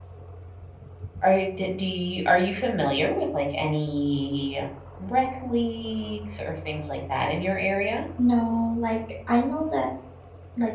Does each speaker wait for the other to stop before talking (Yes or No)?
Yes